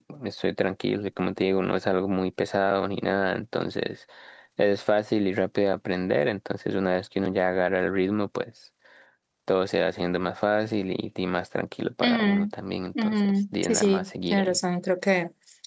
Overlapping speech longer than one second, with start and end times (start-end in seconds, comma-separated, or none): 13.0-14.6